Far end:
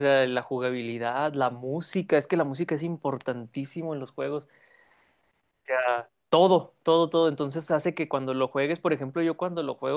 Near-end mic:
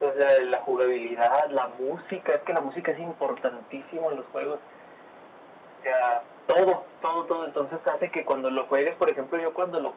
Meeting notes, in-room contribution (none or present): none